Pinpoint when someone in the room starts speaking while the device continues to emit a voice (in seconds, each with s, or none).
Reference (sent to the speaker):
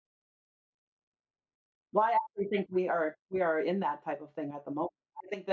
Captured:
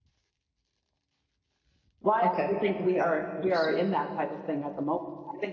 2.2 s